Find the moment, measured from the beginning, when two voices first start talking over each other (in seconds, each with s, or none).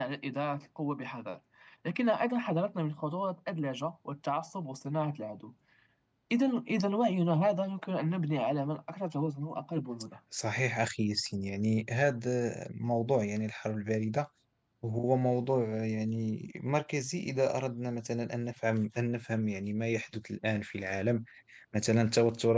none